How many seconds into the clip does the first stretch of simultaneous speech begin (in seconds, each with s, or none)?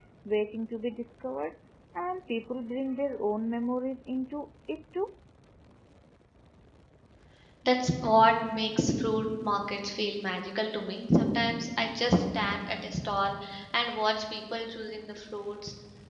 none